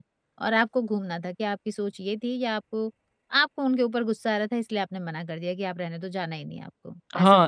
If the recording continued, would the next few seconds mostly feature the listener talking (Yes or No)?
Yes